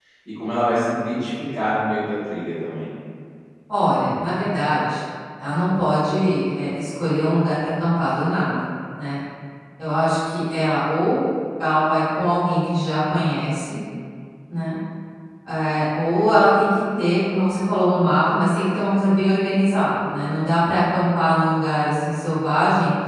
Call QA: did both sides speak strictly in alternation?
Yes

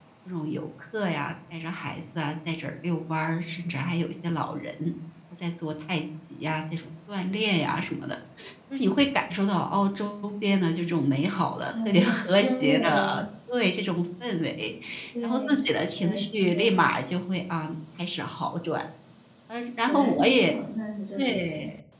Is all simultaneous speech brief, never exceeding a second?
No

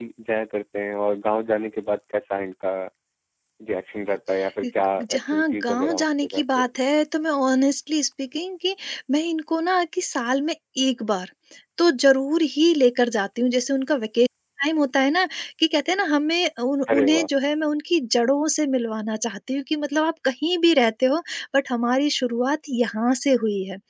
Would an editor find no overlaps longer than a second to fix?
No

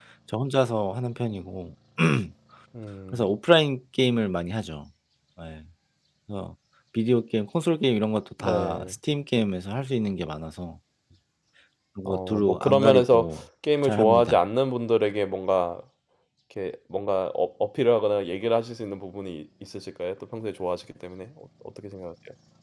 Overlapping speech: Yes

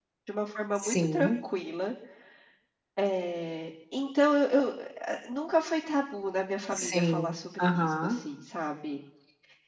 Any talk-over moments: Yes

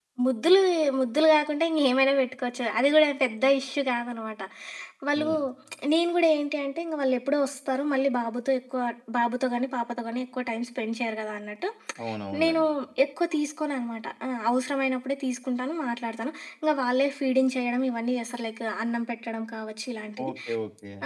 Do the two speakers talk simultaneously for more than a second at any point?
No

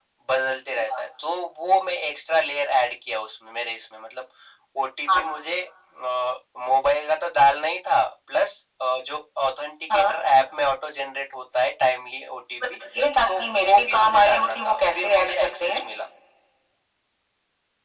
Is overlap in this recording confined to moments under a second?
No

